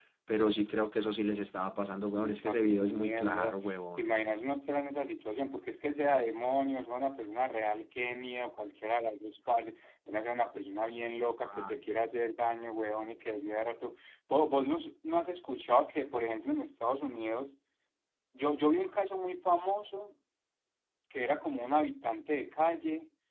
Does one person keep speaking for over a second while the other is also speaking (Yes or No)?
Yes